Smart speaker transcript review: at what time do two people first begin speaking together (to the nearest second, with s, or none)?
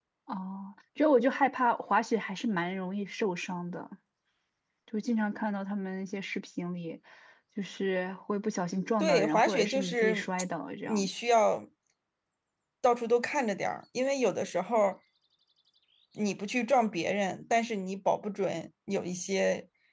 9 s